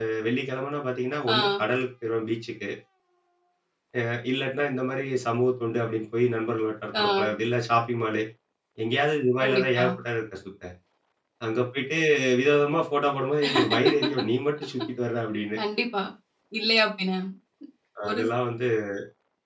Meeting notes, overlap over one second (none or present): none